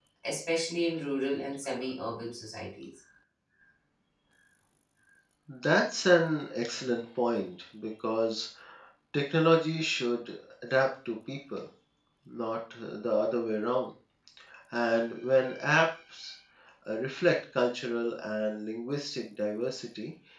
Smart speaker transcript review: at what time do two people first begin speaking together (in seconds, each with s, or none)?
none